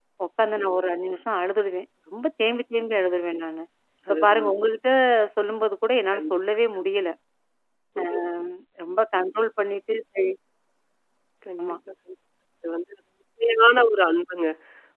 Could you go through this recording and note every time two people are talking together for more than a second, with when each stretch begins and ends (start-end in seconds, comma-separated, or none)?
none